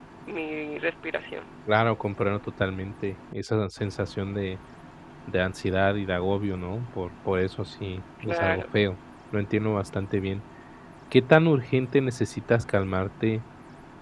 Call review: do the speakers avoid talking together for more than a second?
Yes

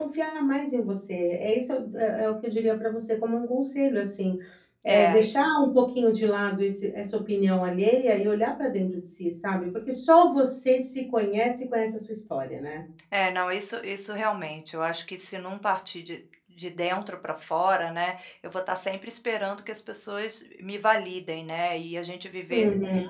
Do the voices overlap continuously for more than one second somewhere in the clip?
No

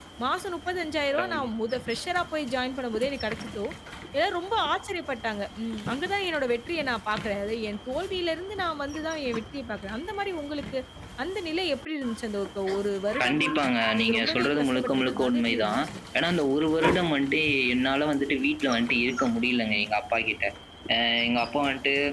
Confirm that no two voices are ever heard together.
No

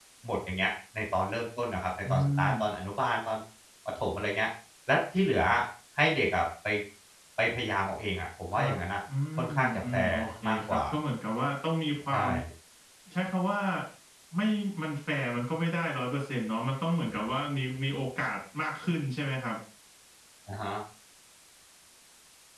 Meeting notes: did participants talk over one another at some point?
Yes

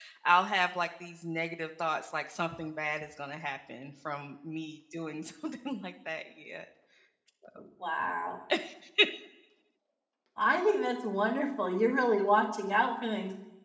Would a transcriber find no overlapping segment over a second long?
Yes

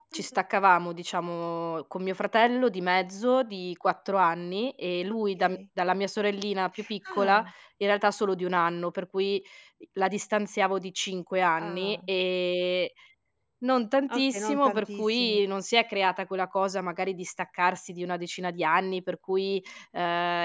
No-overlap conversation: No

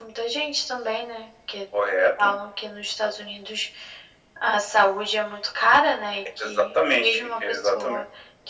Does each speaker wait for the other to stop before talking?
No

